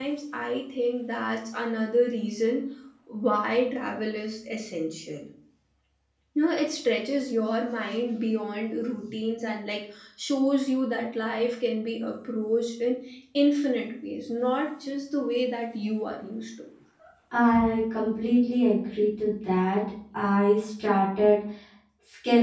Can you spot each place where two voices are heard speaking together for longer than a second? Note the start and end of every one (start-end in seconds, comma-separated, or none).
none